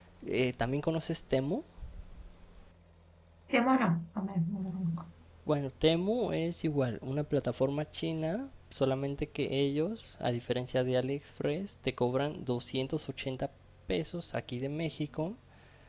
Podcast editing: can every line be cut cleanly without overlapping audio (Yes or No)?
Yes